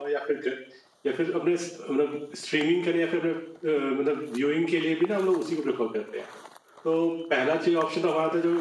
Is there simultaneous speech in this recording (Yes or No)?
No